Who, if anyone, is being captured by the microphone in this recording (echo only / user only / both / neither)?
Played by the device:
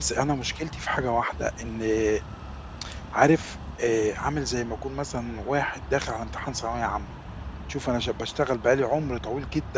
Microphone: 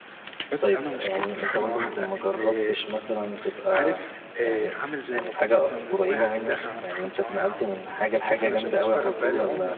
both